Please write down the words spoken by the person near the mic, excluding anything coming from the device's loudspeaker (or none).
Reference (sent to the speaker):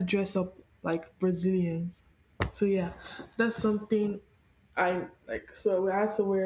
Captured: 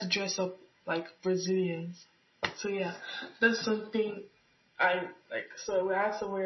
none